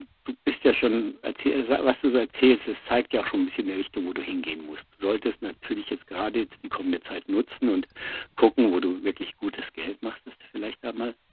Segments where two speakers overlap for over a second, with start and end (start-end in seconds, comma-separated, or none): none